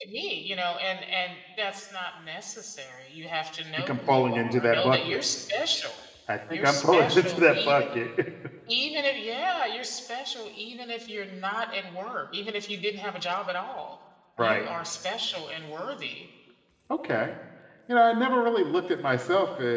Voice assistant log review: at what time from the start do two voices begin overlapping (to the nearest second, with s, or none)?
4 s